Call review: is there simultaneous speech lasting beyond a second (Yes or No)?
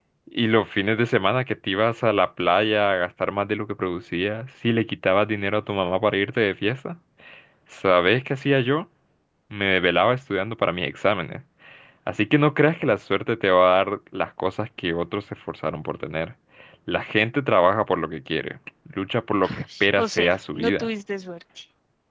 Yes